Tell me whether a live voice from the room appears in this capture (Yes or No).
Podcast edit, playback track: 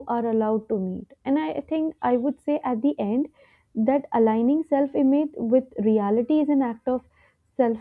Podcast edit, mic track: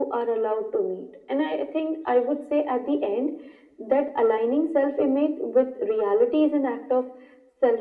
No